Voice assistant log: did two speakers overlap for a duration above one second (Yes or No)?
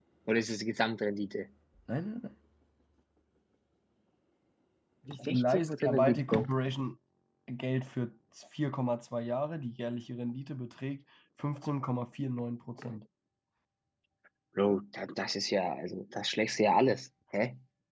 Yes